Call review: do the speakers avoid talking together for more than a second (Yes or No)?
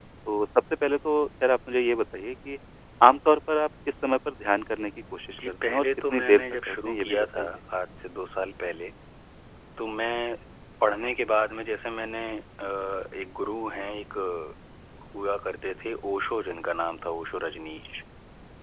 No